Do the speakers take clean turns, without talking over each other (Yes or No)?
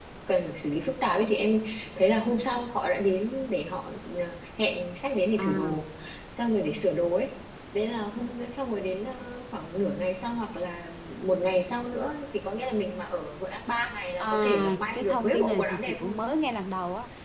No